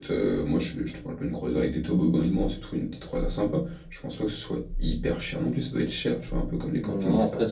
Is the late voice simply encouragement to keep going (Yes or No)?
No